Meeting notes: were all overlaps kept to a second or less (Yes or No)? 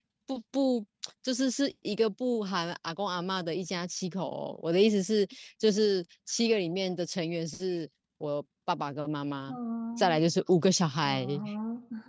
Yes